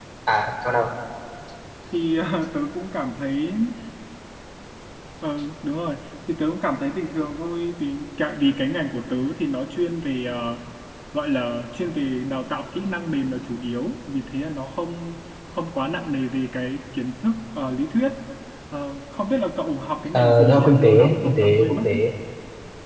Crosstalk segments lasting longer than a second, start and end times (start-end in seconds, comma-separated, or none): 20.1-22.0